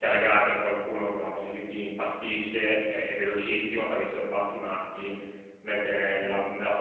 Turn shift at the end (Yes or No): No